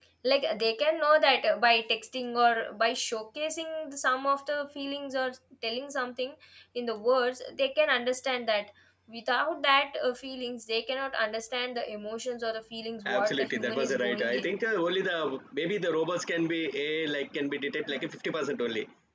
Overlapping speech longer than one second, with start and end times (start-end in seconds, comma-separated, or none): 13.1-14.5